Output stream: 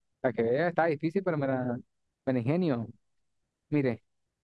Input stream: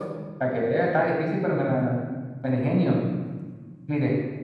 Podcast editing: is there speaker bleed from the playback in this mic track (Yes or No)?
Yes